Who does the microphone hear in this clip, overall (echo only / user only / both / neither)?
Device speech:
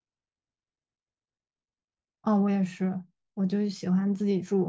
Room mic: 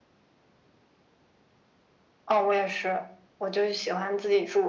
echo only